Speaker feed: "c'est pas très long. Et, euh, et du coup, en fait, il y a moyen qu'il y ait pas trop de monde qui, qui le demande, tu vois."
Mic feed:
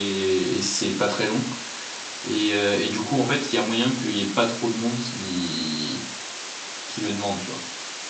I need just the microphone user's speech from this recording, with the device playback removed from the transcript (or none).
none